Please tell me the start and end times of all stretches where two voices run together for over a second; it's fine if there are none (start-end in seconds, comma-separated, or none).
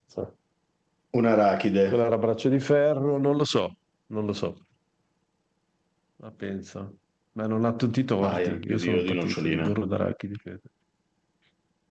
8.2-9.7